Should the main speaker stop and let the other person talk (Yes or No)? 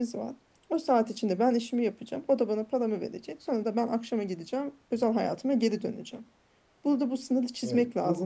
No